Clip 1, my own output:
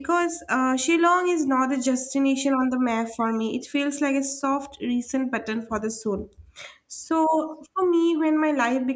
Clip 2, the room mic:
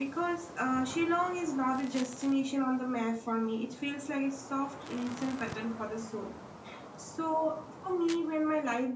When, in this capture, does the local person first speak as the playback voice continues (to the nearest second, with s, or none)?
none